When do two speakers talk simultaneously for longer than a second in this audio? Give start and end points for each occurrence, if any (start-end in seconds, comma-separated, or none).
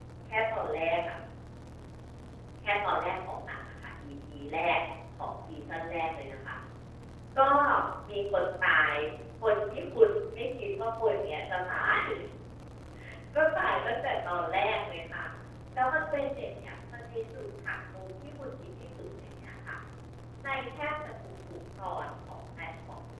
none